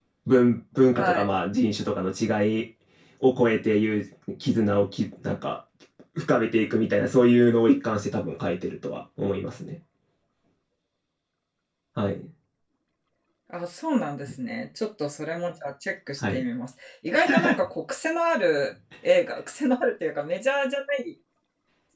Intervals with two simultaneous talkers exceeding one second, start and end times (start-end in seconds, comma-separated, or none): none